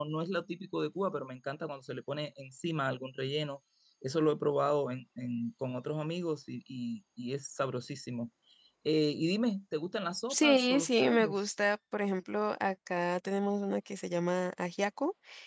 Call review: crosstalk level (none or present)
present